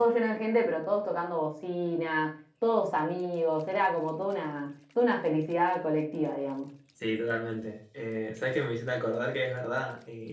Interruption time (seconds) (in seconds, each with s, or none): none